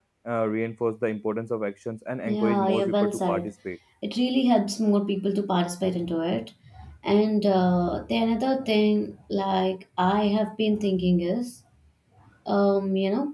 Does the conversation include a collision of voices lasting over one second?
Yes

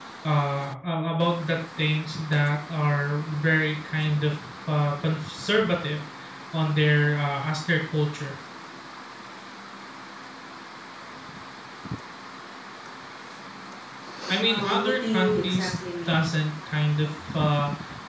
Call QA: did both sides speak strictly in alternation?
No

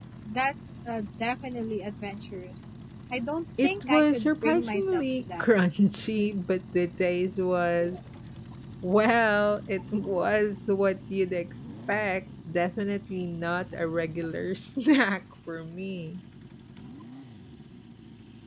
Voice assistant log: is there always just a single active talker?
No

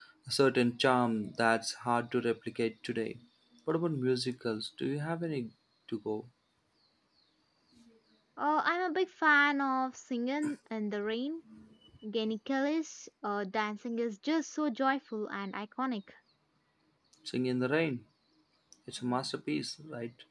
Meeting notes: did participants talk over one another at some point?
No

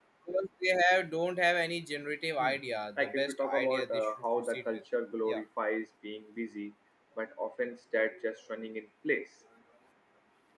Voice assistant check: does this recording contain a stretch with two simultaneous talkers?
Yes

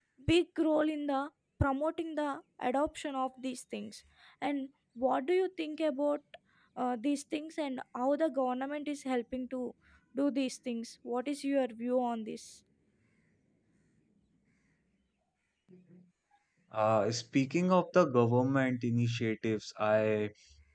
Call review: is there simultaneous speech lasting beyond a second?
No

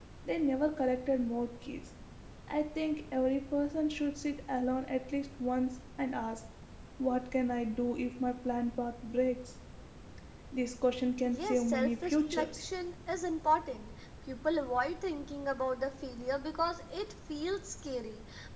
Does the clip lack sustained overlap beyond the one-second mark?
No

